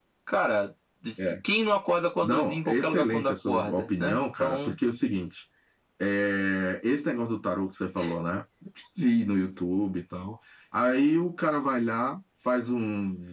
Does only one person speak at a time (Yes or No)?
No